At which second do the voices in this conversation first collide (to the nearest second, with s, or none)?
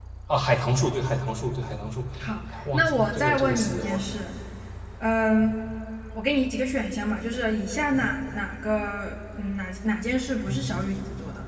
3 s